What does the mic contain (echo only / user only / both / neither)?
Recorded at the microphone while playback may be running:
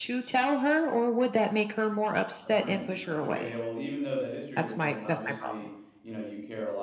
both